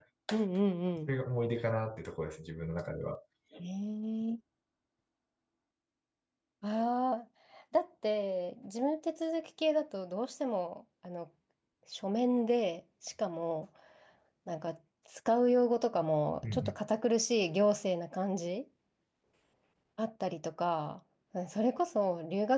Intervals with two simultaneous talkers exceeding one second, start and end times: none

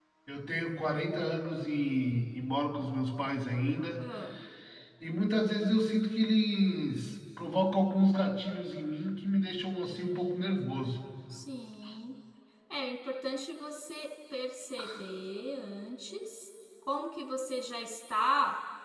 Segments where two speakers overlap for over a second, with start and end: none

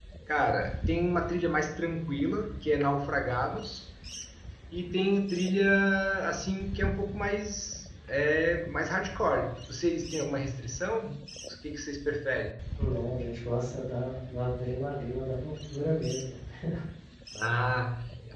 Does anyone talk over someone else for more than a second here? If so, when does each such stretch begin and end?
none

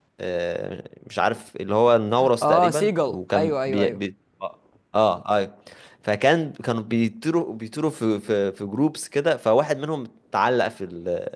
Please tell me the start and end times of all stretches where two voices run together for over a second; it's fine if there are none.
2.4-4.0

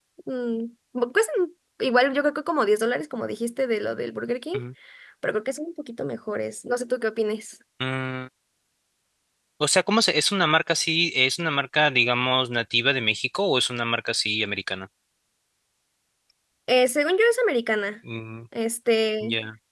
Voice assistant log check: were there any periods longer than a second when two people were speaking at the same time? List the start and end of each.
none

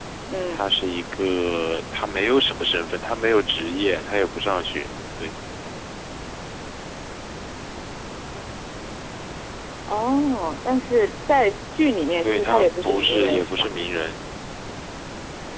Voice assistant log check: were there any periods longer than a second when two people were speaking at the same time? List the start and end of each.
12.2-13.7

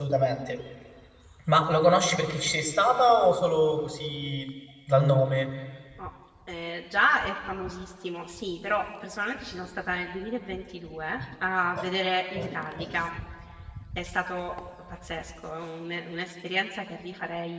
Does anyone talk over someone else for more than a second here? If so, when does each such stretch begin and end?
none

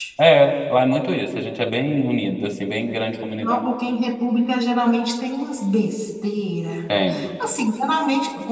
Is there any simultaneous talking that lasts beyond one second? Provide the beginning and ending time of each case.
none

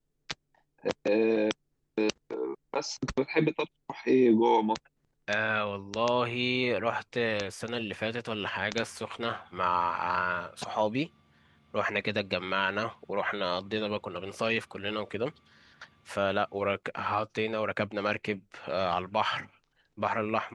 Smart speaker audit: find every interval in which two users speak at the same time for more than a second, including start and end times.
none

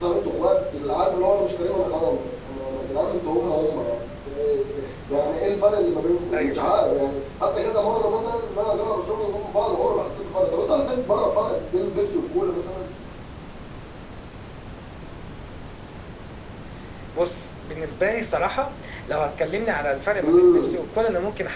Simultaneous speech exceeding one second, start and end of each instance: none

